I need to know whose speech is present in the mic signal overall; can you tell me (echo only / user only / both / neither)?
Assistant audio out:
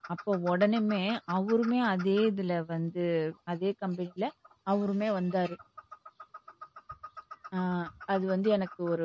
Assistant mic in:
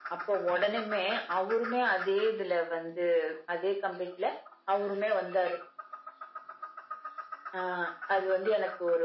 echo only